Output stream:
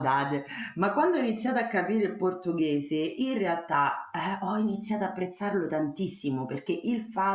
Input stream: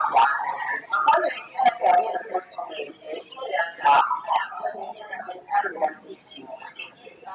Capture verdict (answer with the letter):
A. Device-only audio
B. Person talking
A